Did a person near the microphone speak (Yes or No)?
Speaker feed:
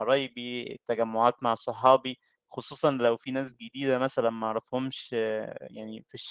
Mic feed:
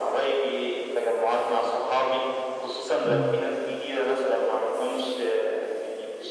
Yes